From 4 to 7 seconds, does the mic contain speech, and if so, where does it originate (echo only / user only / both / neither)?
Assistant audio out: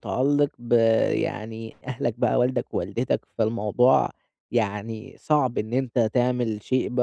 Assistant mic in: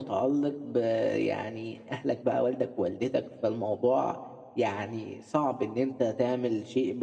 echo only